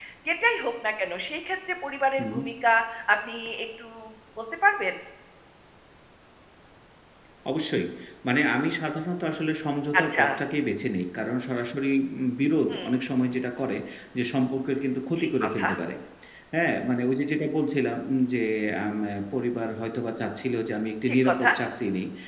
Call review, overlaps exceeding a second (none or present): none